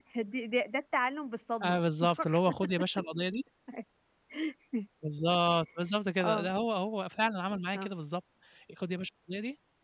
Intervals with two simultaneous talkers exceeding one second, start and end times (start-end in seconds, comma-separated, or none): none